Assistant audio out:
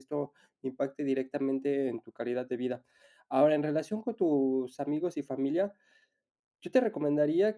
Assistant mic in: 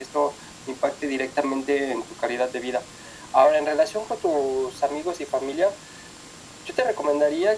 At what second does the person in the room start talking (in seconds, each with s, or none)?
none